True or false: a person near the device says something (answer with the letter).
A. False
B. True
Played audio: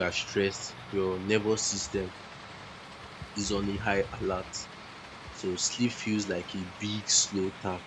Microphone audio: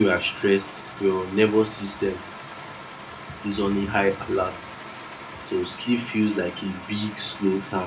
A